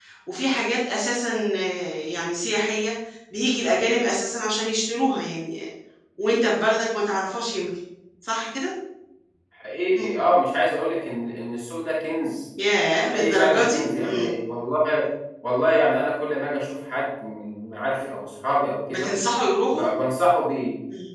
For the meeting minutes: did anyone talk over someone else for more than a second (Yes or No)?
Yes